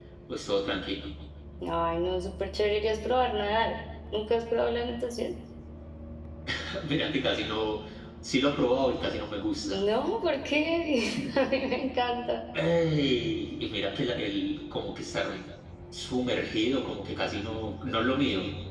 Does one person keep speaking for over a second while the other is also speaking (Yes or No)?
No